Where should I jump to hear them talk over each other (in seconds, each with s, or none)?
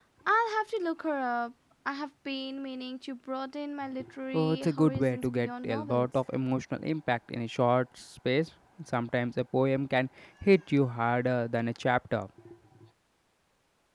4.3 s